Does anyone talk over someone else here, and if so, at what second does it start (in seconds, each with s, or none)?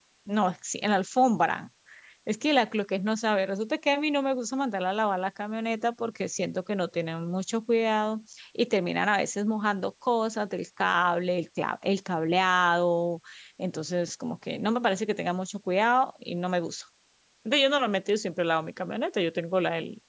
none